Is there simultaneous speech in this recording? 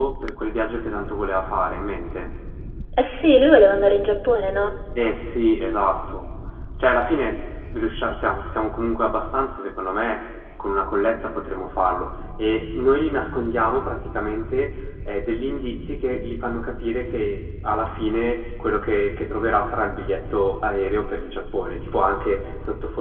No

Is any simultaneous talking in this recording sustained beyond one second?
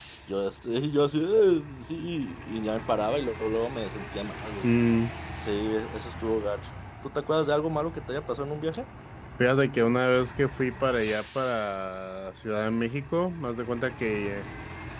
No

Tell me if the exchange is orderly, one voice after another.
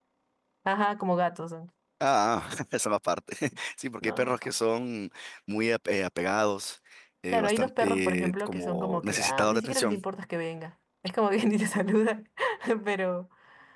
No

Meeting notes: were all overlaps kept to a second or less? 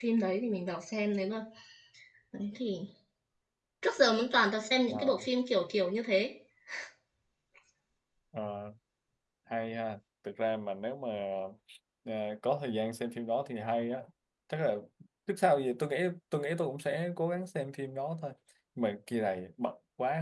Yes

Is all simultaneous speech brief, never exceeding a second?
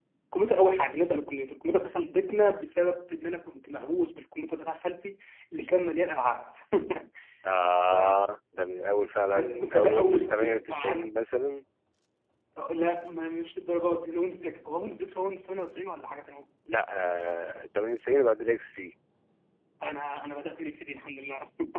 No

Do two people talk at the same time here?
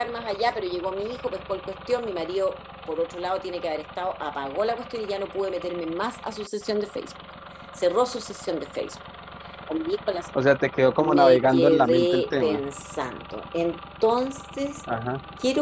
Yes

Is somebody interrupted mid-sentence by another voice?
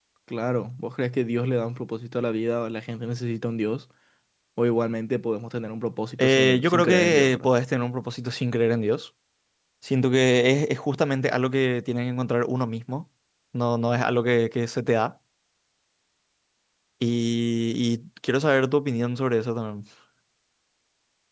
Yes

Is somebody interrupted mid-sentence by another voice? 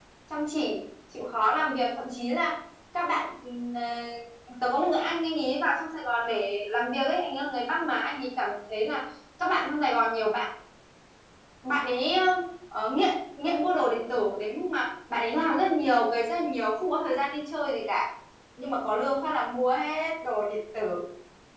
No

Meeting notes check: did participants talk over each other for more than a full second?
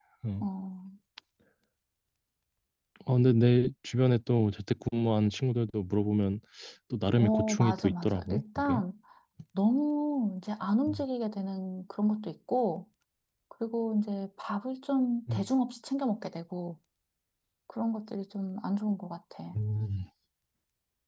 Yes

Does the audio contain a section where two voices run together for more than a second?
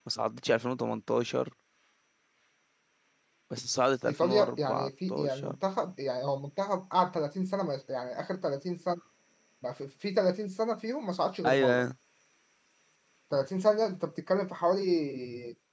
Yes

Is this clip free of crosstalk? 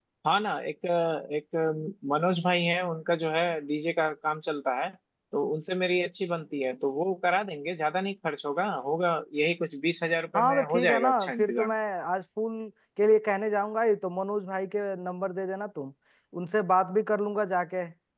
No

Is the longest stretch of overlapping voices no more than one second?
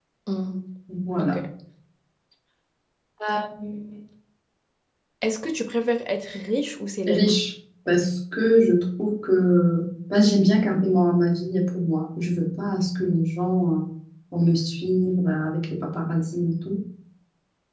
Yes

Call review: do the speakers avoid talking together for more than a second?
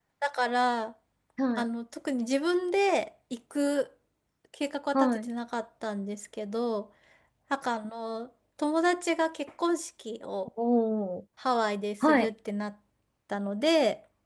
Yes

